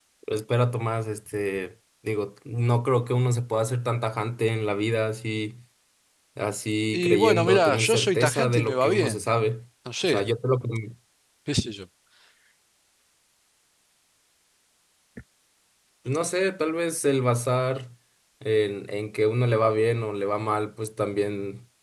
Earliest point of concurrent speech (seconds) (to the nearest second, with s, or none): 7 s